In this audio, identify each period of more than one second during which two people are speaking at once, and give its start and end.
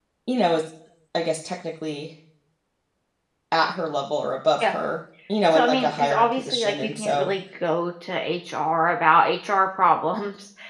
5.5-7.3

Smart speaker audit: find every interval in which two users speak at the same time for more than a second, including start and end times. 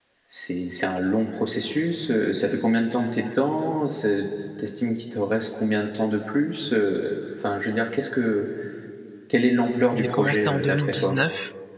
9.9-11.2

